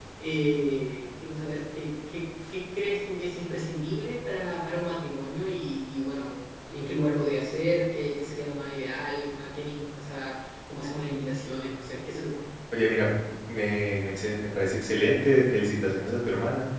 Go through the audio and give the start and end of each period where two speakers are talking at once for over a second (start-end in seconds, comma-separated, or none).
none